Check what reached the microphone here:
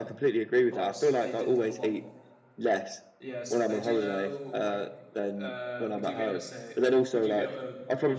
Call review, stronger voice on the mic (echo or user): echo